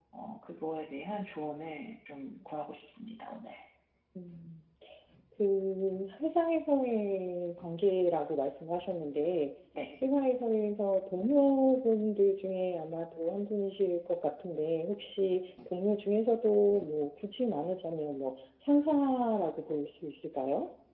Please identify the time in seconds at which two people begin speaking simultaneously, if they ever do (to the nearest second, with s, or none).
none